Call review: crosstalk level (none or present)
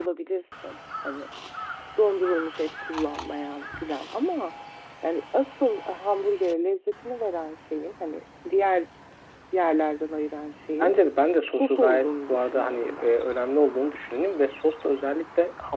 present